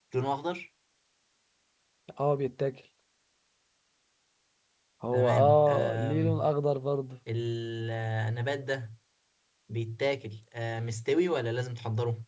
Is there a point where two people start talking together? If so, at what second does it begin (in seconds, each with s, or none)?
5.1 s